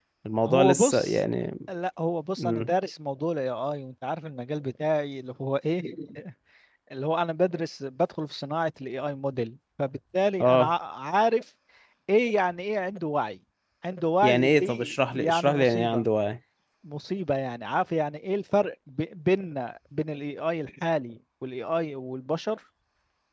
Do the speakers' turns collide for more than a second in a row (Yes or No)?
Yes